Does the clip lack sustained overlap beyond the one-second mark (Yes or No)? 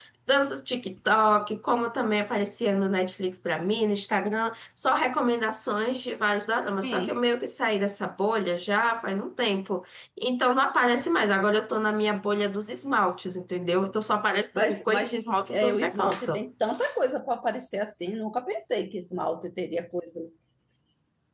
No